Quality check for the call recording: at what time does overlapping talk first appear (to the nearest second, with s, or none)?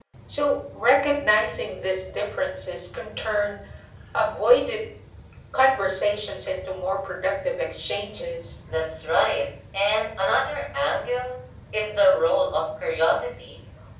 none